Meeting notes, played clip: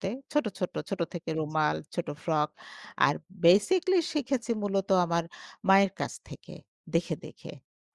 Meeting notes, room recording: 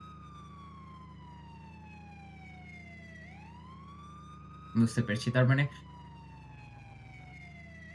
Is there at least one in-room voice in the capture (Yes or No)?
Yes